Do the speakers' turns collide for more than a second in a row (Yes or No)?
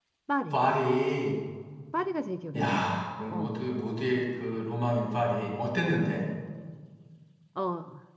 No